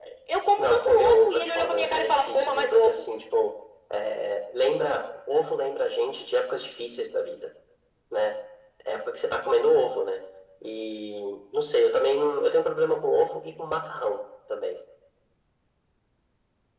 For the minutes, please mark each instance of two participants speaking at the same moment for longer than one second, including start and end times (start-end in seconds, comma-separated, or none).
0.6-3.0